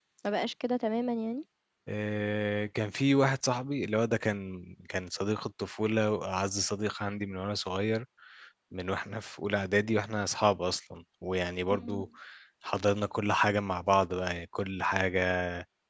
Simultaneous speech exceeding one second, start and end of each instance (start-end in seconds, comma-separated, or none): none